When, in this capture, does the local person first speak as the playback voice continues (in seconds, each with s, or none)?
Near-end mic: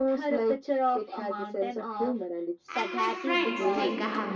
2.7 s